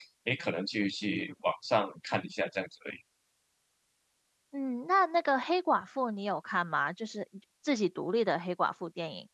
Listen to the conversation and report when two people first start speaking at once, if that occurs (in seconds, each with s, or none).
none